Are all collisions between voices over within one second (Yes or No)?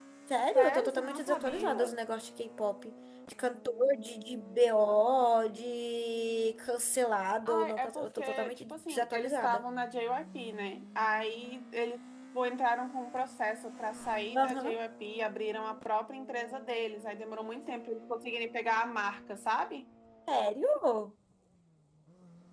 No